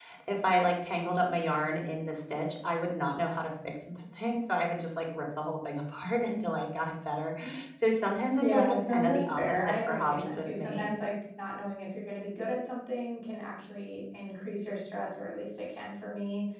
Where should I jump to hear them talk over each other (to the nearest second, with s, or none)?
8 s